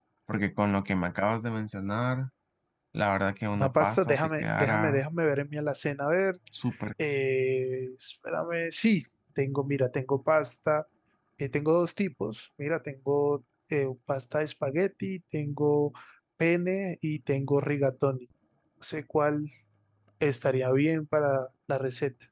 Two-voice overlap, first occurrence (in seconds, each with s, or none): 3.6 s